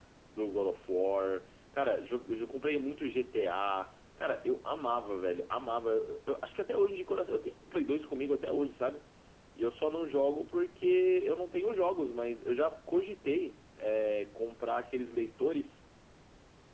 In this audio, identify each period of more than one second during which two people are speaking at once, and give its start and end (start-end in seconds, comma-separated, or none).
none